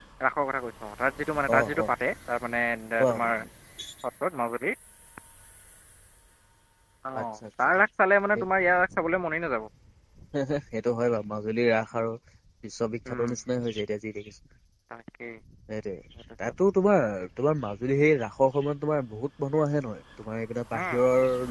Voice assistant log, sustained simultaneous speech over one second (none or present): none